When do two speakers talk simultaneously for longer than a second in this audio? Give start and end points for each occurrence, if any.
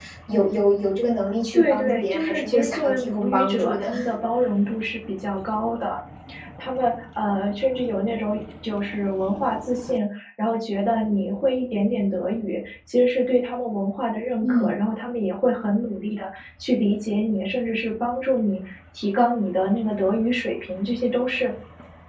1.5-3.9

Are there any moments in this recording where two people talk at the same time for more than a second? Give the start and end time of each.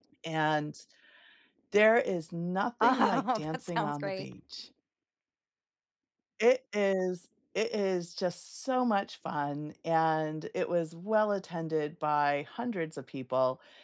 2.8-4.2

